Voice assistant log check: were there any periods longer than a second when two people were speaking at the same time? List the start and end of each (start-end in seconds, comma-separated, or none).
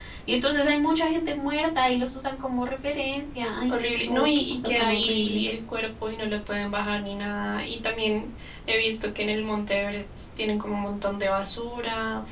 3.7-5.4